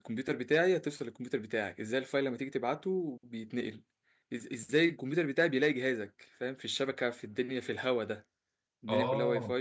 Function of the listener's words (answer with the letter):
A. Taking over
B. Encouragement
B